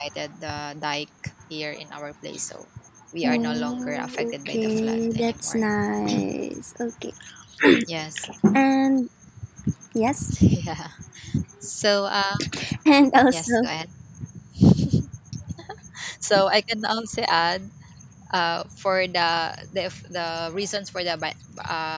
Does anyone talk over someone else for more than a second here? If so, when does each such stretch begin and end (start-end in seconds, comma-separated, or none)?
3.2-5.7